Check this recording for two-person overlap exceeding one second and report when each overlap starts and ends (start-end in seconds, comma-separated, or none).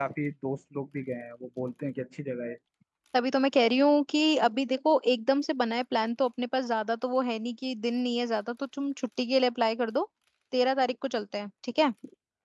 none